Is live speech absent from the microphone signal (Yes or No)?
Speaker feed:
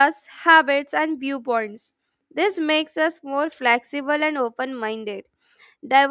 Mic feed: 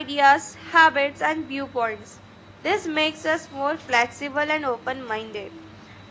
Yes